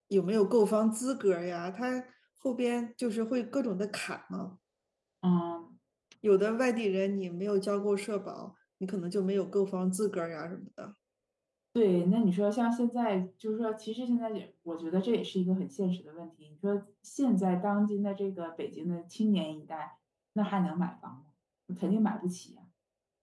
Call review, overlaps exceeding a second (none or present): none